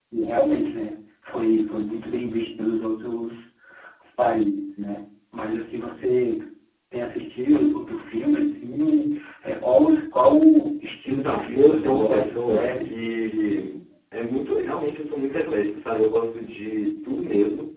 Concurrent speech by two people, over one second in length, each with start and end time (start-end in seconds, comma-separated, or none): 11.1-12.9